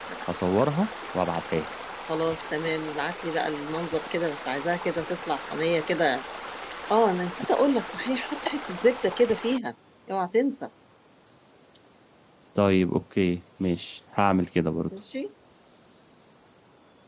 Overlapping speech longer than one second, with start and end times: none

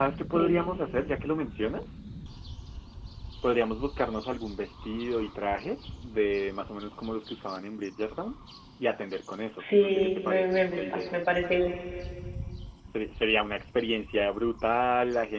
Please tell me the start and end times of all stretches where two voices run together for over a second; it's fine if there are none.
9.6-11.1

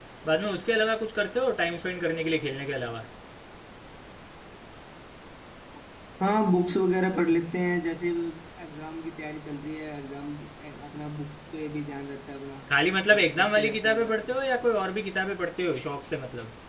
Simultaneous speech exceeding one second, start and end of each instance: 13.1-14.3

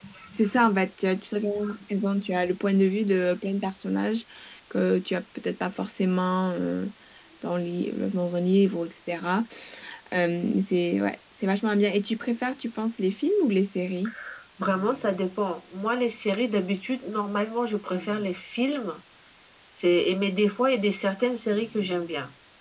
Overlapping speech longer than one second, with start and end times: none

